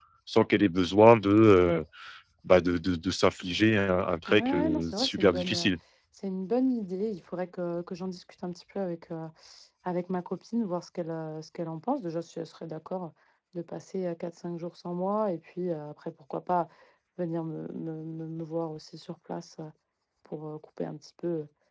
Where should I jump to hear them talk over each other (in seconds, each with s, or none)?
4.3 s